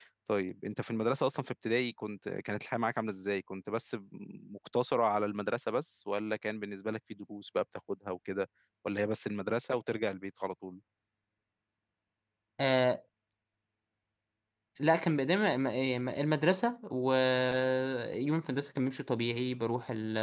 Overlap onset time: none

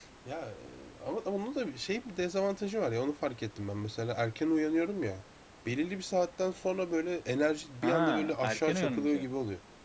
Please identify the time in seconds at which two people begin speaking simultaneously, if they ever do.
7.8 s

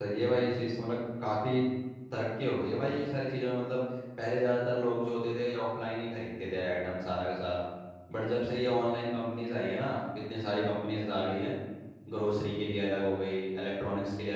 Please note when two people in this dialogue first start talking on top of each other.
none

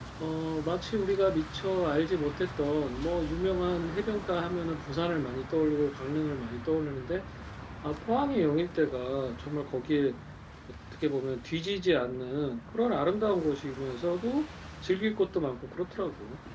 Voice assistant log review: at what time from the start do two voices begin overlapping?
none

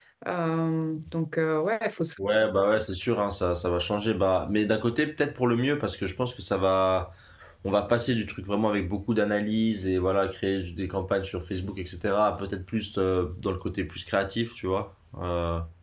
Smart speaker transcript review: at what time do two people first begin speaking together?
none

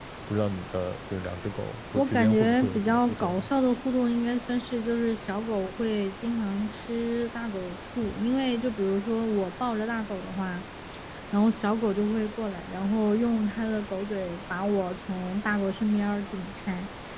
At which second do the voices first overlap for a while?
1.9 s

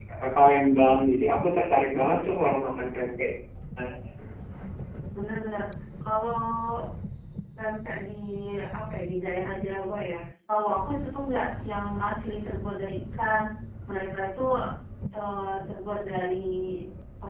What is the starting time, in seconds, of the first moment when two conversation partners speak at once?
none

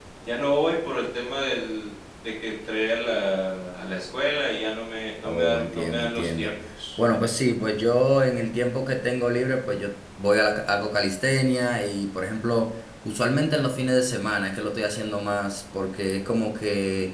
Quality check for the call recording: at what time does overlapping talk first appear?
5.2 s

